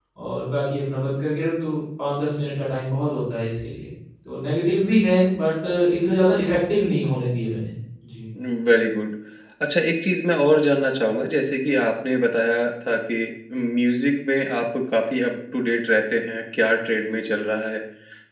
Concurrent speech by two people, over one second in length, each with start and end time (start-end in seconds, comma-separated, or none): none